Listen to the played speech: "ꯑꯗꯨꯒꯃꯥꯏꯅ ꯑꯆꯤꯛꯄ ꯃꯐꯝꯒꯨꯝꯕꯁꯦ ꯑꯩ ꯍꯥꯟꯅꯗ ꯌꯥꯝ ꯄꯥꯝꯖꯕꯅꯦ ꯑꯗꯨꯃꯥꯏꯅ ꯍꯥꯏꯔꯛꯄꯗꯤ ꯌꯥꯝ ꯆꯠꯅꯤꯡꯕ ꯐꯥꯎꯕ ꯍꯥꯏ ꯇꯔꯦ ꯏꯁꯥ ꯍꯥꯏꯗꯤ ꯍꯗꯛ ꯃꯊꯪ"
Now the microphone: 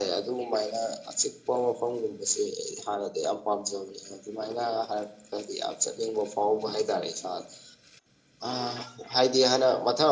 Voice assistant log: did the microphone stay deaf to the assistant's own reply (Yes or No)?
No